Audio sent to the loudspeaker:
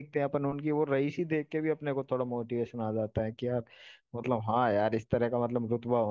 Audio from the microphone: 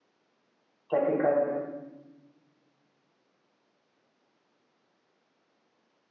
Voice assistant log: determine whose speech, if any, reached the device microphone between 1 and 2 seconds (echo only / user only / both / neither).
user only